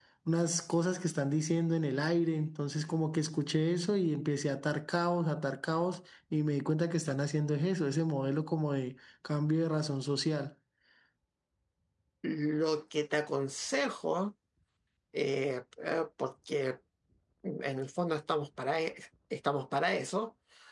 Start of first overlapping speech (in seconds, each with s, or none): none